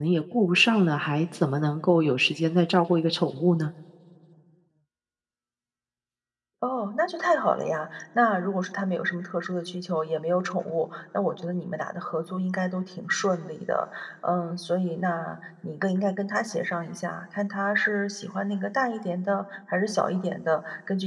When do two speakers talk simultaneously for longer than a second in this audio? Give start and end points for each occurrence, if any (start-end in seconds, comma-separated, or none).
none